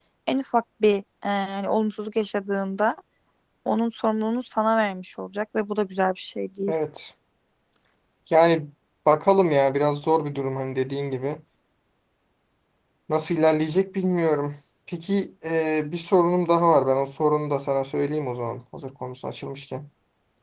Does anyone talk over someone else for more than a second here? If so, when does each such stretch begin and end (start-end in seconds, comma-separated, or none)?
none